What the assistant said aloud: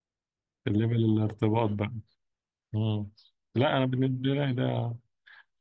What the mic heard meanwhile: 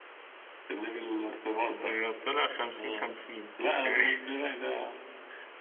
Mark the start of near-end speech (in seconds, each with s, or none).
1.8 s